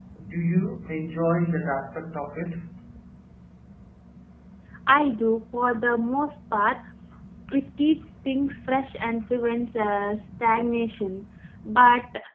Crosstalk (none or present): none